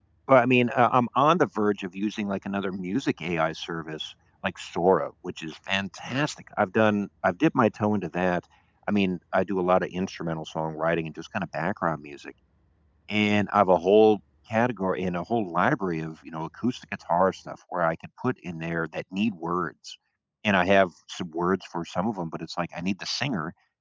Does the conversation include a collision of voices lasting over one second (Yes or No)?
No